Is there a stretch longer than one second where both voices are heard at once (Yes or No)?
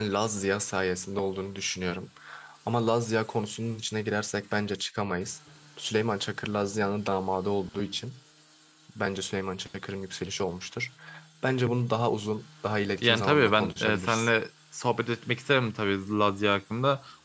Yes